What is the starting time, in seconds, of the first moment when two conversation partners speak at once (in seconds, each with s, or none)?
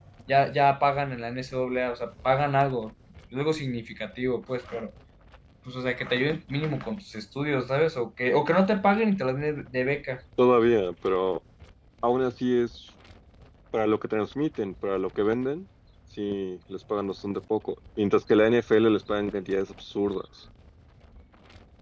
none